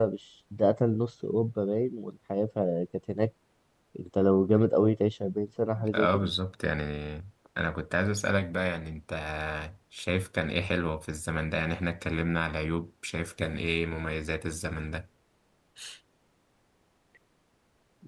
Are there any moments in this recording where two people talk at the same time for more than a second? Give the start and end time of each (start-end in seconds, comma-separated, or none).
none